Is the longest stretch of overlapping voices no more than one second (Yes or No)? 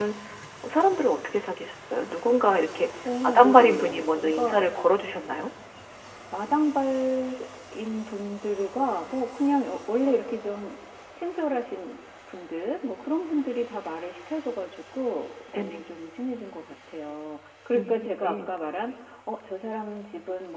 No